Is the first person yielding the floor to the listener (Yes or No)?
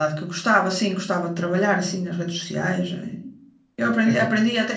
No